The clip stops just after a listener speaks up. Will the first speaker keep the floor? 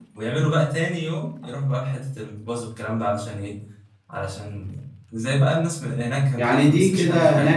No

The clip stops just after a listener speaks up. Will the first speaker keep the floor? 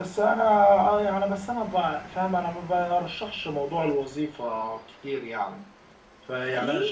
Yes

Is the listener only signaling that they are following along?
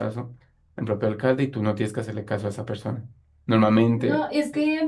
No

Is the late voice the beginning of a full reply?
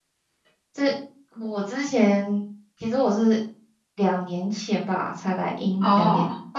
No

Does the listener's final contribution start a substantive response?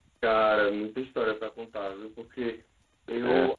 No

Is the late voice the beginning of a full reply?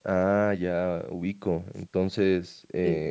No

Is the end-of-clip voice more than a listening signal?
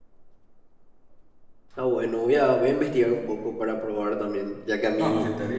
Yes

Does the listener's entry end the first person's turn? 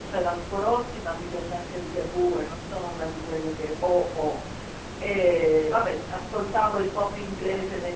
No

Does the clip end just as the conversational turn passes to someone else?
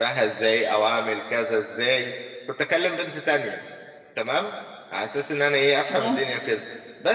No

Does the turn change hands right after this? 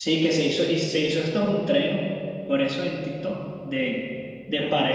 No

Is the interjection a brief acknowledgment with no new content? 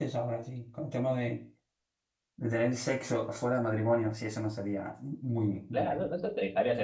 No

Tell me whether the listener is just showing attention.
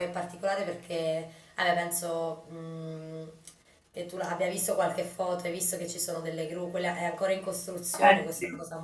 Yes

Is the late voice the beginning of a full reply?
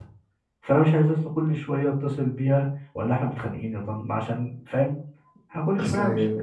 No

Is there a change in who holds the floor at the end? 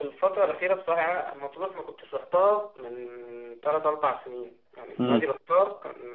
No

